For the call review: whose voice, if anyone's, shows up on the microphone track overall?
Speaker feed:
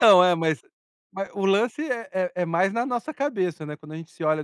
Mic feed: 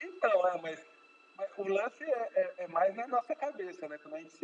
echo only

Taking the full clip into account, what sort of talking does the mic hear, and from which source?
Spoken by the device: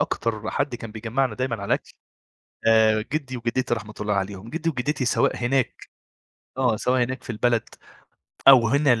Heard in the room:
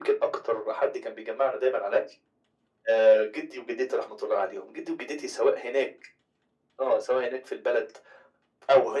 echo only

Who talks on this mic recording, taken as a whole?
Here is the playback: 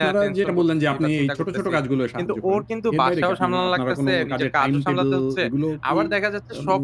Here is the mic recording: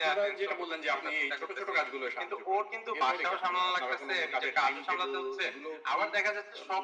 echo only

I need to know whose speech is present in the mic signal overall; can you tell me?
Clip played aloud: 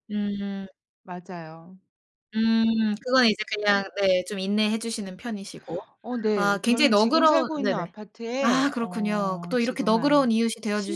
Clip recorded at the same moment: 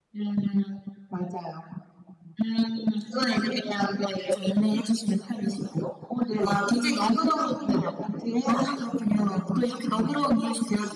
echo only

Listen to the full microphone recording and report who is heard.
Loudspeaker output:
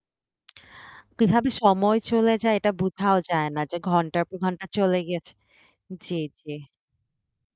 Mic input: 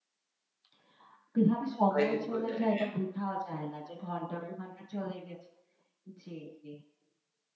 both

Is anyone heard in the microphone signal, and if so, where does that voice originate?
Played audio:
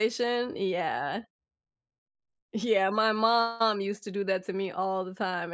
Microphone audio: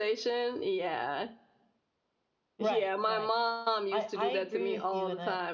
both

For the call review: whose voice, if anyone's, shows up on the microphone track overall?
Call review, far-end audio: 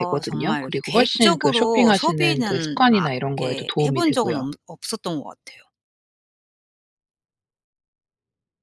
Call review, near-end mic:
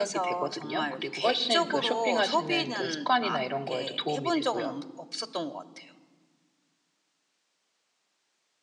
echo only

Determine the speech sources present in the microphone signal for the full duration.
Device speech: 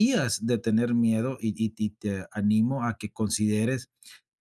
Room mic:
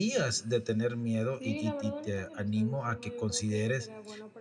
both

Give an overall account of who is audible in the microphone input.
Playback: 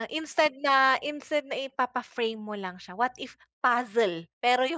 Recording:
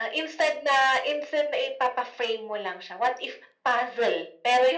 echo only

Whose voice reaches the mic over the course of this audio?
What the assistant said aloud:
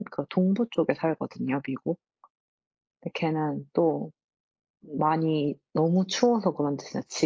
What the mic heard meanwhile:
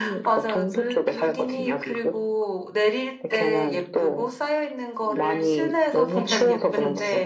both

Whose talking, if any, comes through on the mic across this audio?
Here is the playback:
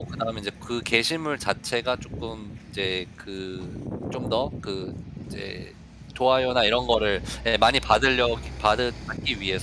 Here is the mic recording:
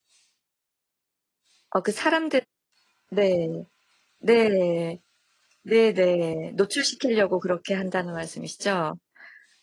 user only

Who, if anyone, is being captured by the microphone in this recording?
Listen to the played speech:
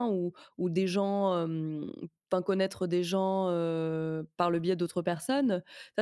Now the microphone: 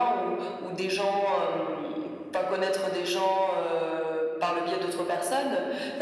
echo only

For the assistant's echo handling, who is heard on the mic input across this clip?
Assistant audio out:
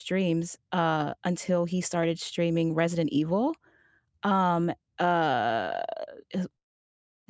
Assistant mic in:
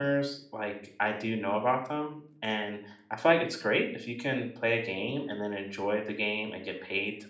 user only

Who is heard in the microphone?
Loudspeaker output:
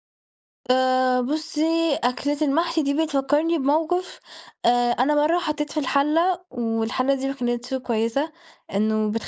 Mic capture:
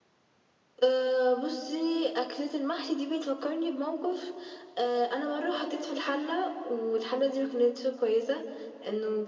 echo only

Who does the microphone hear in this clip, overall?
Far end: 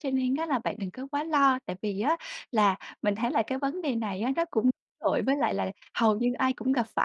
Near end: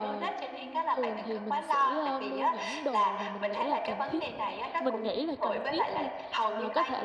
both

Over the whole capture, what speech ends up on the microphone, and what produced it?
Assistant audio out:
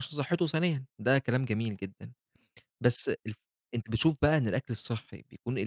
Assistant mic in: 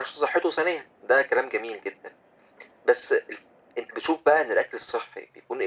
echo only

